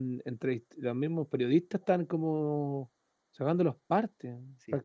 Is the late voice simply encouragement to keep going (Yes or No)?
No